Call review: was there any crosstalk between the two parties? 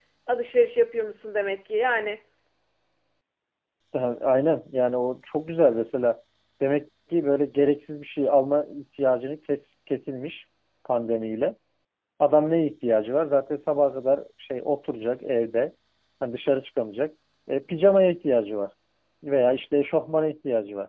No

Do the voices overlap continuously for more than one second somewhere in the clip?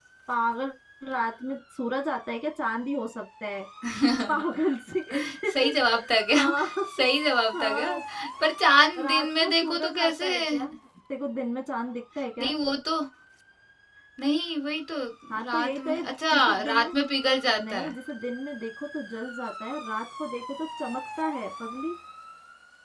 Yes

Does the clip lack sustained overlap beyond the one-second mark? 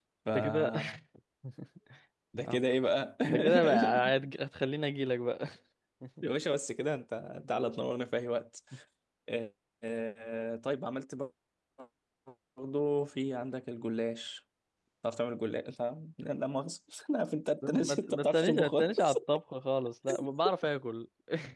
No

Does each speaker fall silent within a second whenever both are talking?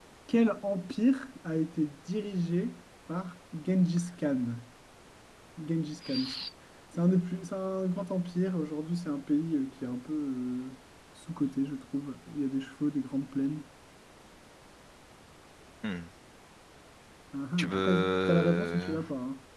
No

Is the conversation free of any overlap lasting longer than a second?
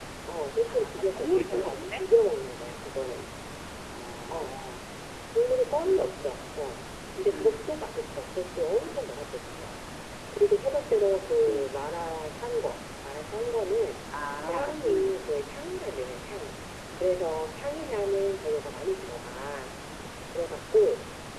No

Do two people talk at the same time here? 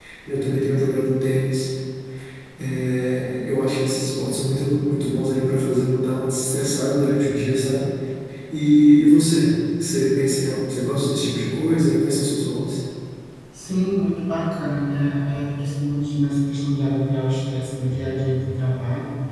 No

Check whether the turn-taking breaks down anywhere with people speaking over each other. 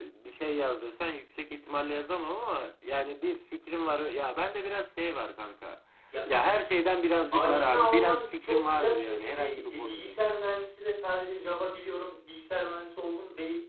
Yes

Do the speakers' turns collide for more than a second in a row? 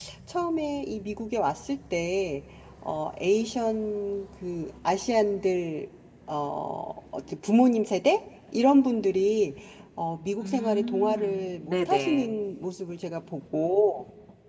Yes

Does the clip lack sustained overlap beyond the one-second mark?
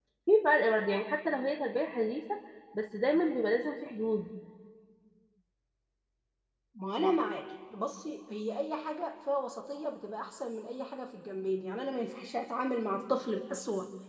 Yes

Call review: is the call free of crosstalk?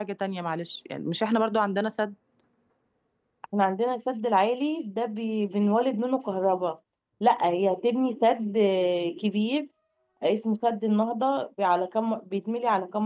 Yes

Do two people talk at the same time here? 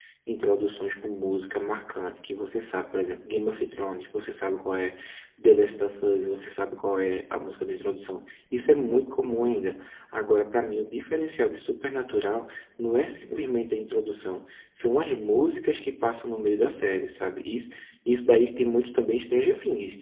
No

